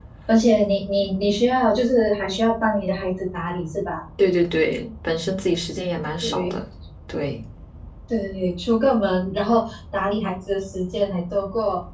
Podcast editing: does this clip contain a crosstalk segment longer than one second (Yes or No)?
No